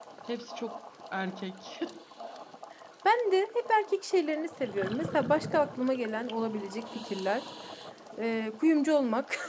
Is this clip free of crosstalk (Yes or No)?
Yes